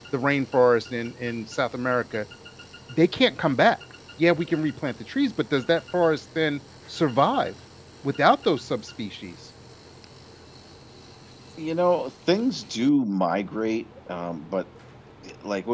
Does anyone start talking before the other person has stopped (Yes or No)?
No